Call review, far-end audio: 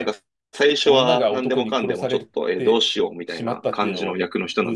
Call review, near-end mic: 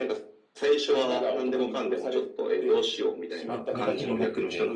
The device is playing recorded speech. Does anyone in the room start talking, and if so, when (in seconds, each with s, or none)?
3.5 s